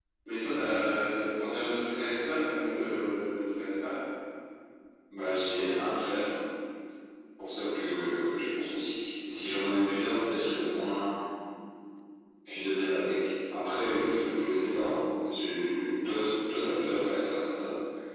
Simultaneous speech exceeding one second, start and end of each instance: none

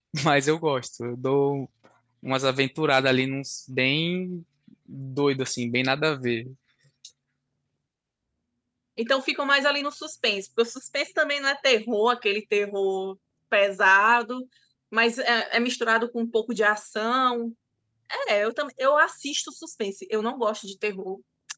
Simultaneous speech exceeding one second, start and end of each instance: none

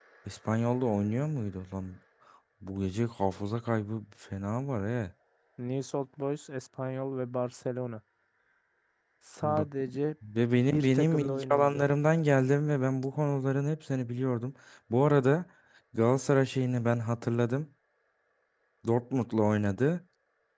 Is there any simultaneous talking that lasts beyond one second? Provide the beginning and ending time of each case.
10.6-11.8

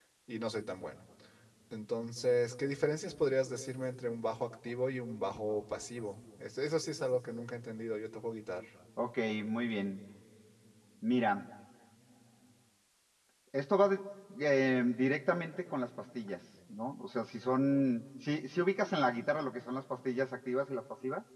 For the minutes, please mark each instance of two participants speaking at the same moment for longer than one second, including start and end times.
none

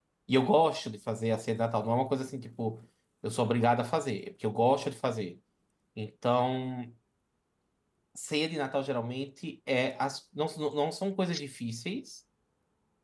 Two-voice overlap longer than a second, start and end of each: none

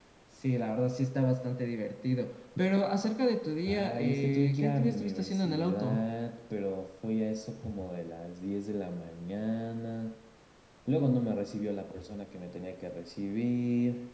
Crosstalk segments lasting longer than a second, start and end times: 3.7-6.0

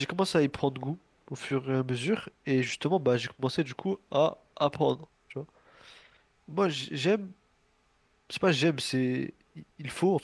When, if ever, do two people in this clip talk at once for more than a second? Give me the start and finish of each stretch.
none

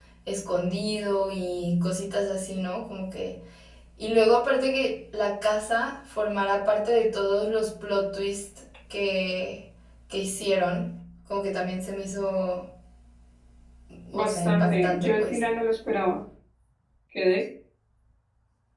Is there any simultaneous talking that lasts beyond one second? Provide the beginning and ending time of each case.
14.1-15.4

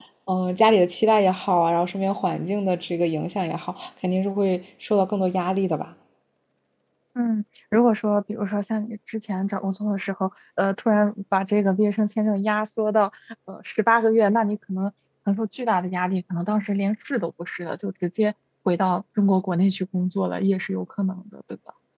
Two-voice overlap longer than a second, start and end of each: none

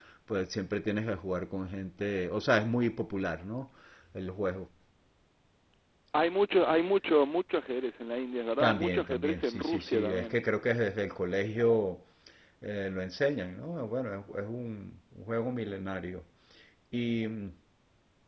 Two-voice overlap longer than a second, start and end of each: 8.6-10.4

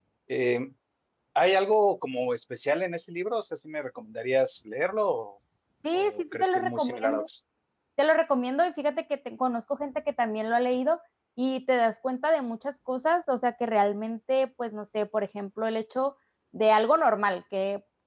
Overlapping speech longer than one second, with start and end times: 5.9-7.3

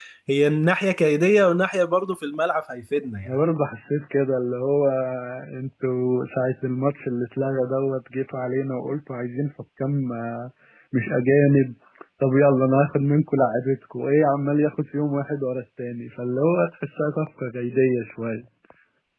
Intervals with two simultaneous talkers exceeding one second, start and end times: none

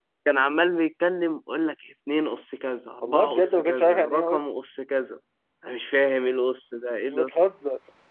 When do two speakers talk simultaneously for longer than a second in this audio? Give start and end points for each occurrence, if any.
3.0-4.4

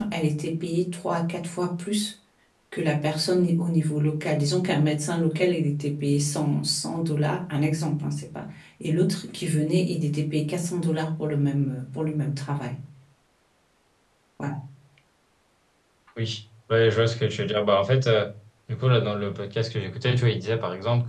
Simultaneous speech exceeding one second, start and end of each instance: none

